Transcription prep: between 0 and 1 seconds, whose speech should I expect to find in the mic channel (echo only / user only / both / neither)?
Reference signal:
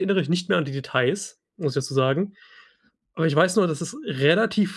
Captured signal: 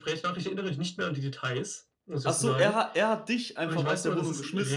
echo only